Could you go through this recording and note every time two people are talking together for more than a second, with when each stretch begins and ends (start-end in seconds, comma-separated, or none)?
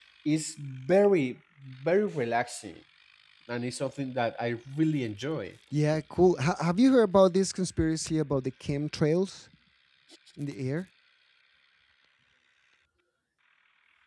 none